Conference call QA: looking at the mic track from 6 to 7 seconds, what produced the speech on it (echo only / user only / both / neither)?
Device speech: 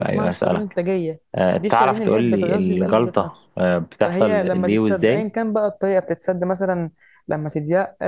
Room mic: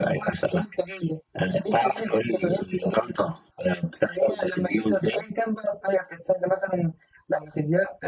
echo only